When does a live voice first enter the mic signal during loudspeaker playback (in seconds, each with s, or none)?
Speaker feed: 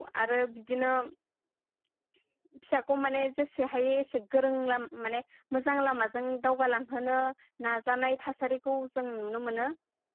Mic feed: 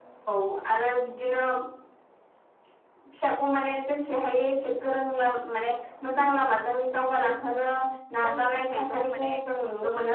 8.2 s